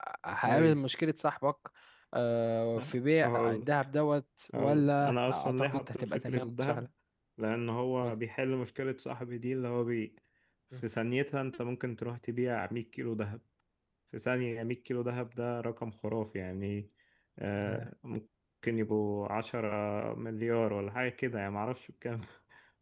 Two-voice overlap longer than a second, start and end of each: 4.5-6.8

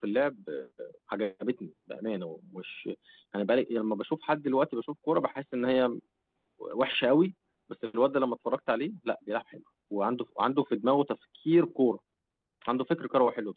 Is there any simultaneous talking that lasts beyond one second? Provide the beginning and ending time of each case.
none

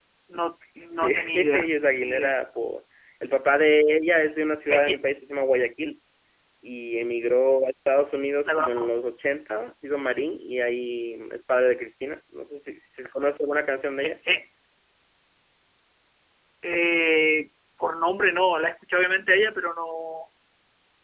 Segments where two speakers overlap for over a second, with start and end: 0.9-2.3

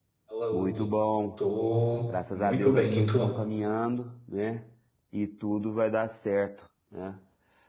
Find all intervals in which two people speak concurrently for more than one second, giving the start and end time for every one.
2.1-3.3

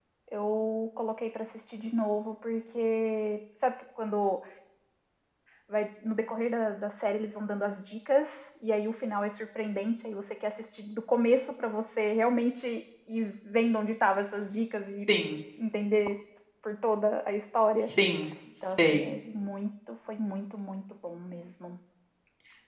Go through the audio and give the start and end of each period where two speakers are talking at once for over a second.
none

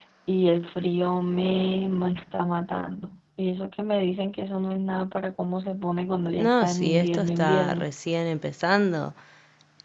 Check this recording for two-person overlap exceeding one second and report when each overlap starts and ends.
6.4-7.8

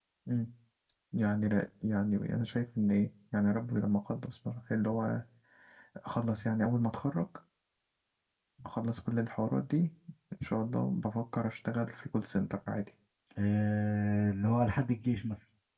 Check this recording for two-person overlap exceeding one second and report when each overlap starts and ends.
none

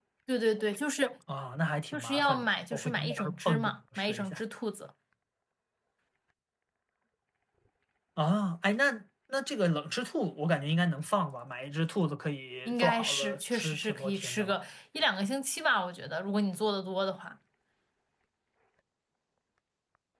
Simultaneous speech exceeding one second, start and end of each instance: 1.9-4.4, 12.7-14.5

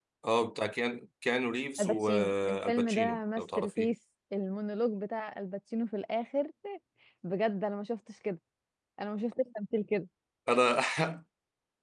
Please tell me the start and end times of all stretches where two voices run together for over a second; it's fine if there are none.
1.8-3.9

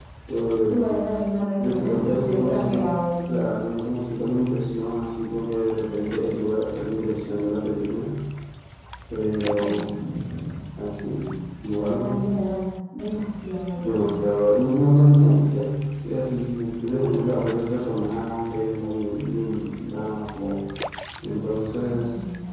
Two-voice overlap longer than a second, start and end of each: 1.6-2.8

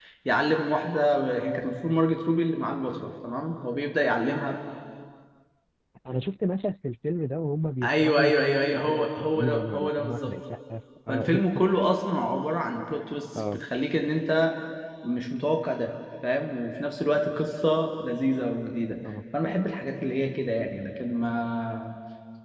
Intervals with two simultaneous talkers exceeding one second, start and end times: 7.8-10.3

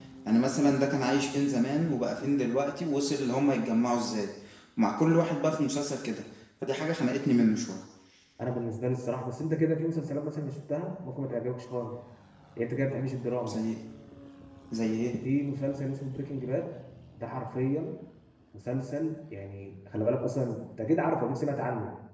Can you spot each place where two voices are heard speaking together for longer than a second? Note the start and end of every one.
none

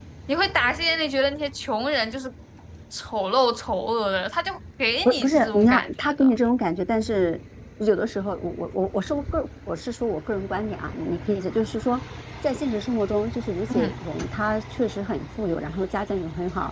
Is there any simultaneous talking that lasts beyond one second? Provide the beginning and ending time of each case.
5.0-6.3

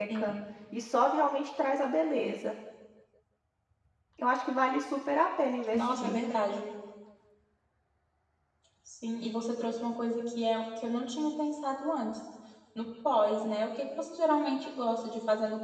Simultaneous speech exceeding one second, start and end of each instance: none

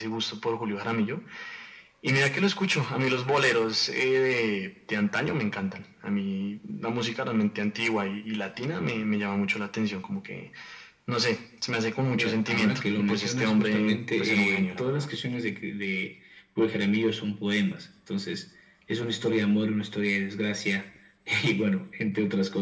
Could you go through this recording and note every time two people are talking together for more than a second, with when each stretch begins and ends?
12.1-15.1

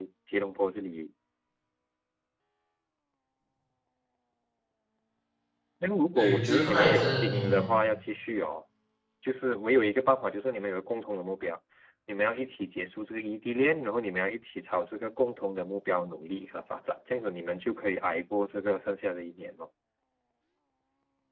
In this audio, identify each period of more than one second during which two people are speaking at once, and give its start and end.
6.2-7.7

